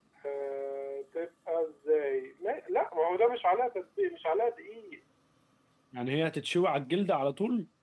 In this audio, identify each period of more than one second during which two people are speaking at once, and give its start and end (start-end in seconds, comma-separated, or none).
none